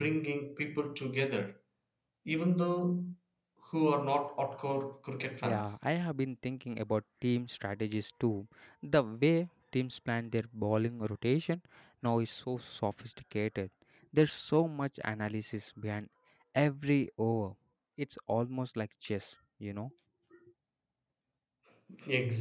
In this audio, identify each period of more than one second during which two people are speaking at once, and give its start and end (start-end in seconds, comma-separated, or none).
none